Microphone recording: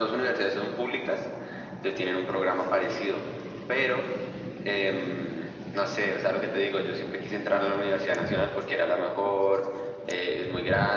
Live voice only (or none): none